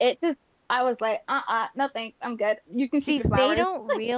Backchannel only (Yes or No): No